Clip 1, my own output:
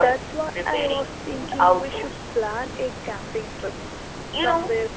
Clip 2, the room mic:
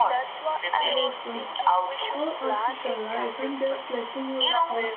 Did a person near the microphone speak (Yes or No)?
Yes